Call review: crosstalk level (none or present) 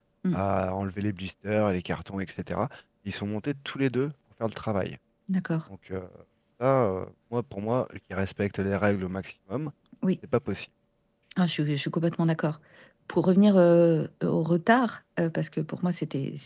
none